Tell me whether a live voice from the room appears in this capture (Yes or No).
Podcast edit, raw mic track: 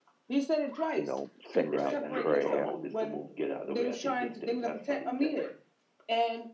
Yes